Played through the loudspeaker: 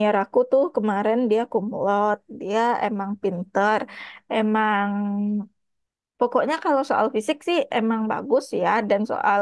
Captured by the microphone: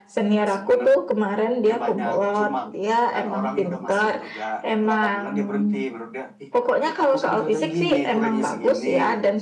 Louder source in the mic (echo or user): echo